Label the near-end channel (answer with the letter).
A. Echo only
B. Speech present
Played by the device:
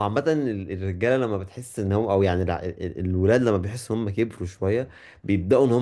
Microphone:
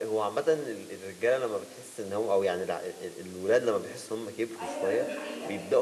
B